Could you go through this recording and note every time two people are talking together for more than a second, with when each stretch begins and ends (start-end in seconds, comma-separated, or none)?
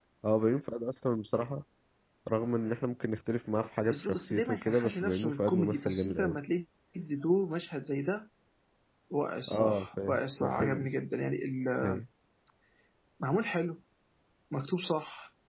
3.9-6.4, 9.5-10.9